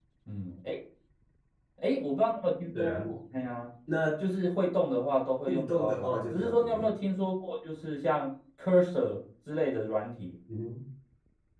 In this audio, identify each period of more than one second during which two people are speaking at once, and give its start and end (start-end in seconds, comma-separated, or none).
5.5-6.9